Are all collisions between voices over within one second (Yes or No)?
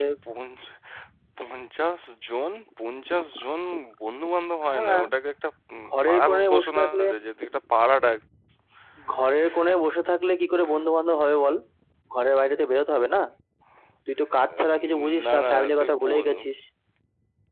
No